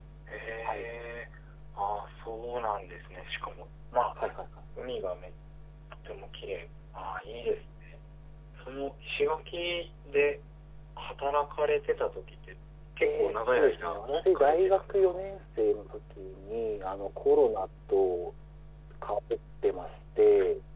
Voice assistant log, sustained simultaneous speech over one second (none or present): present